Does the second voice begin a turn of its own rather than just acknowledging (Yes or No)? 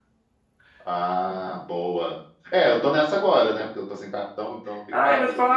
Yes